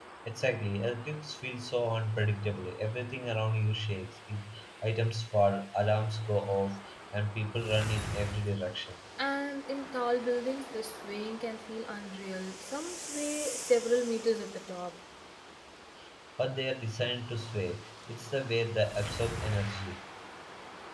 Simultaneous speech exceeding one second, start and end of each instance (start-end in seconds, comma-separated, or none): none